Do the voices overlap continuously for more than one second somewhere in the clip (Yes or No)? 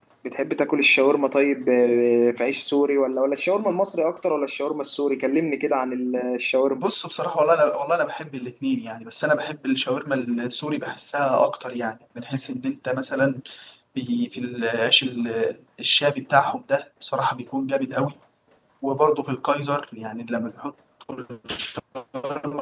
No